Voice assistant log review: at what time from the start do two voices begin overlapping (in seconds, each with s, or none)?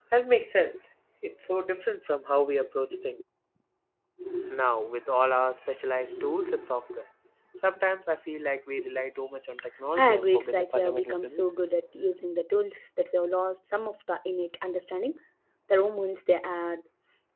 9.9 s